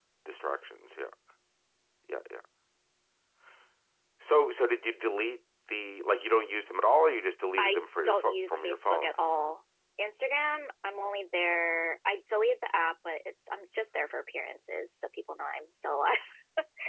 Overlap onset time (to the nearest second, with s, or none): 8 s